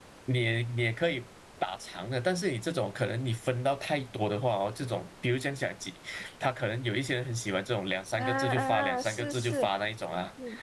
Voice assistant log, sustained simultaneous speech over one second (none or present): present